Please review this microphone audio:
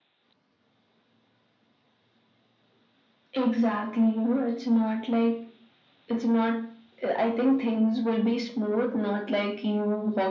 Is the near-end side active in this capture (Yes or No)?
No